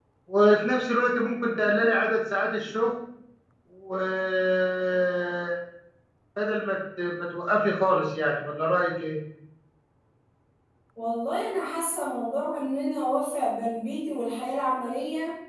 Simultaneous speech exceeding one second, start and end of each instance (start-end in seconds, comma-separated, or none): none